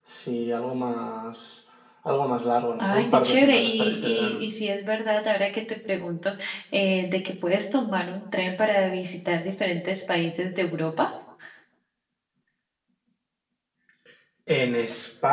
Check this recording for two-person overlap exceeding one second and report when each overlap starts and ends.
2.8-4.4

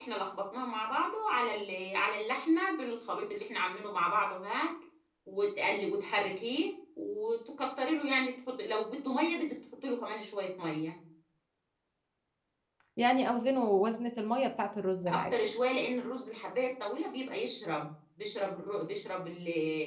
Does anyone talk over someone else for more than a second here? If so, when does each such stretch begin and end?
none

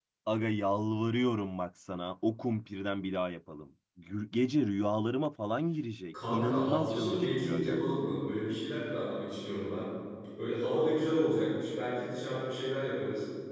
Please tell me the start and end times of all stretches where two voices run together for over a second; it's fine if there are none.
6.3-7.8

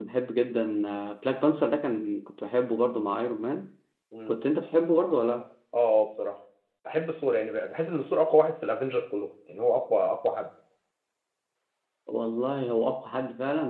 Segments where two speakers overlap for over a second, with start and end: none

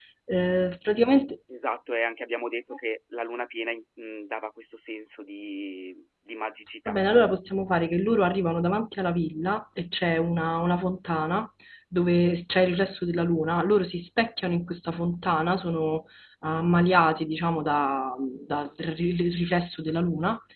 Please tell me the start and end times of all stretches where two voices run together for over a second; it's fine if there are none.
none

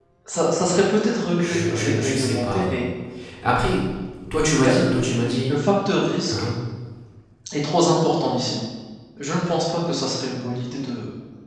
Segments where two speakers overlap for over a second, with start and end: 1.4-2.8

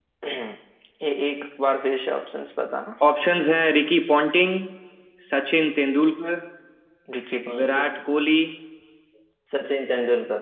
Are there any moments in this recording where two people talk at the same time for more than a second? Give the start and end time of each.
none

